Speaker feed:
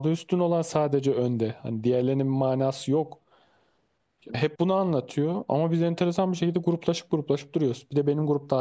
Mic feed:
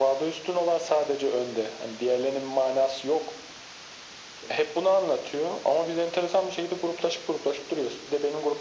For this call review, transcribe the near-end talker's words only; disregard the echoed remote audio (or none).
none